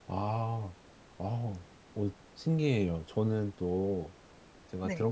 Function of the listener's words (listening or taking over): listening